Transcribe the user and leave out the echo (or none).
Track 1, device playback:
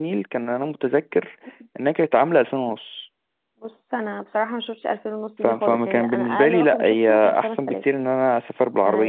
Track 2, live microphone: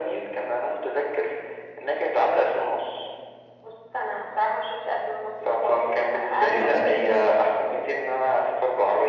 كان امتى طيب